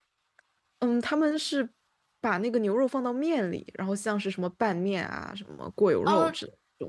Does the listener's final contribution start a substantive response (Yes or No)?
Yes